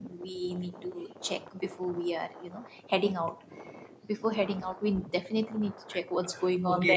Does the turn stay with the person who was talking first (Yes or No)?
No